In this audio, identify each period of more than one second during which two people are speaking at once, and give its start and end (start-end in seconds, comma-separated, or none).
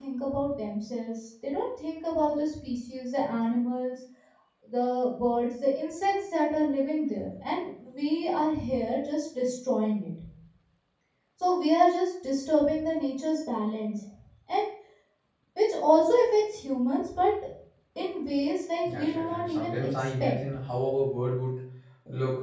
18.8-20.3